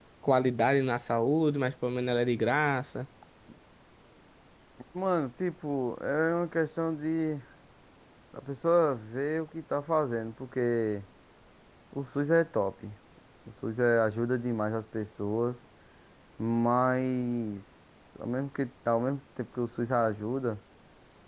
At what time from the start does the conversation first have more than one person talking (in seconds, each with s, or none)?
none